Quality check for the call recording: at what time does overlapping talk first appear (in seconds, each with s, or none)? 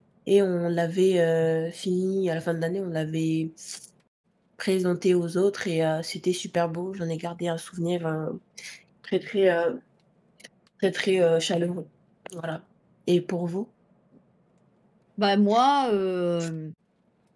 none